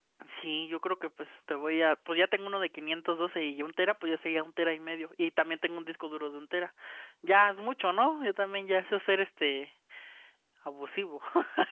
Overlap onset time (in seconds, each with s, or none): none